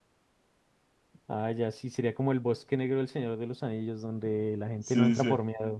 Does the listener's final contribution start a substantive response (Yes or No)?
Yes